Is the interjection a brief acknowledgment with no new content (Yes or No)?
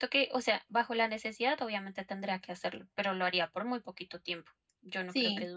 No